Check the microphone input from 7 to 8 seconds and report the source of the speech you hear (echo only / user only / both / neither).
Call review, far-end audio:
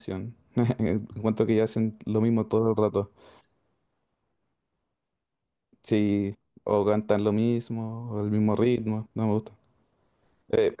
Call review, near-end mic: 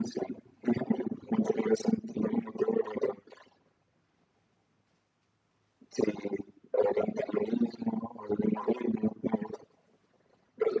echo only